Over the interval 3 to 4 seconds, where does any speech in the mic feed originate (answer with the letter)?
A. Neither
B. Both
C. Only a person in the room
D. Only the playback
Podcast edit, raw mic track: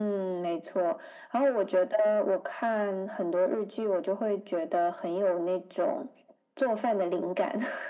D